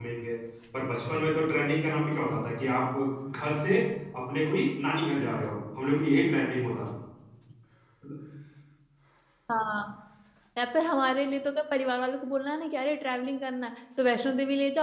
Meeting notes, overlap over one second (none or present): none